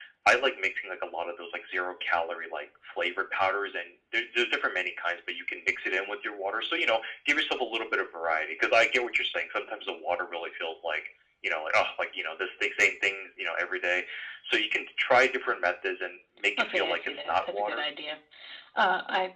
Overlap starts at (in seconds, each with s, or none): 16.6 s